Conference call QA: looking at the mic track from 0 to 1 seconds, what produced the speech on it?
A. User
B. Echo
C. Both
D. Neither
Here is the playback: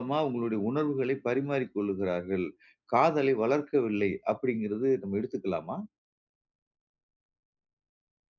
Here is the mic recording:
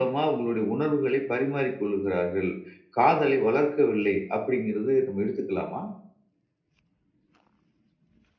B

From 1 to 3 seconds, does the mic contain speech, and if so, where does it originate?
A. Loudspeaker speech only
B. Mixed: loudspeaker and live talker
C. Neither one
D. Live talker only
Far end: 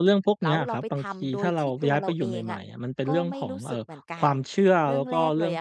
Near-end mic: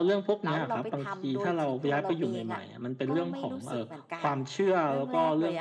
A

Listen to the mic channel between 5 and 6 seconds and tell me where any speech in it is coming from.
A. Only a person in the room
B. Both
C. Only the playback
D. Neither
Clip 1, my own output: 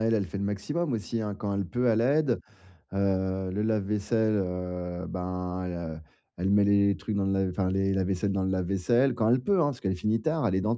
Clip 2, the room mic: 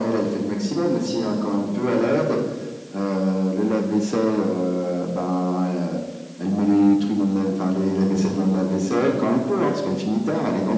C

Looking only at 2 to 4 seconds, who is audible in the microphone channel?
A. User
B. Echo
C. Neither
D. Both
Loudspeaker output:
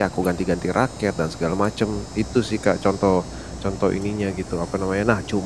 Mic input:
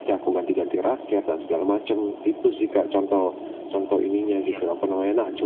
B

